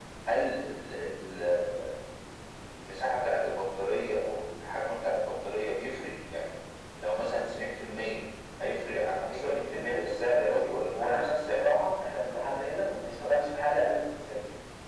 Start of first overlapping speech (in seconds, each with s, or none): 9.3 s